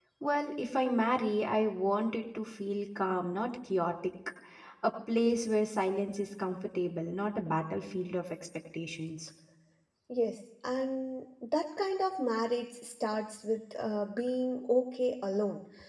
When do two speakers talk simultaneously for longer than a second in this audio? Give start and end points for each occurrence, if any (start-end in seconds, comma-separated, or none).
none